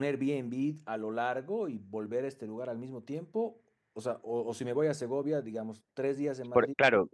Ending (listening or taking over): taking over